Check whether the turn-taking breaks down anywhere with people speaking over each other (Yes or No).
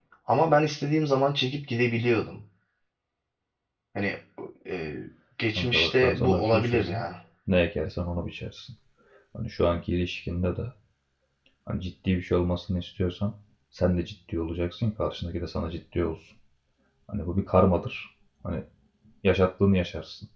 Yes